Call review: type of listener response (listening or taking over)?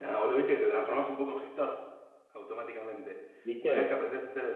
listening